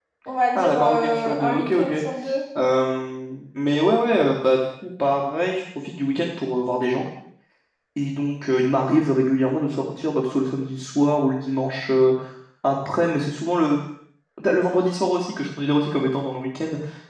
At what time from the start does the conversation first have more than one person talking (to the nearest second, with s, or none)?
1 s